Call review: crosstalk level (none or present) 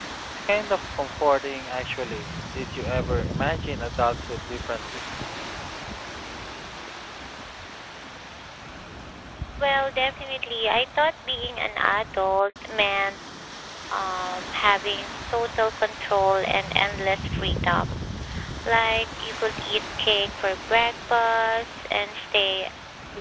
none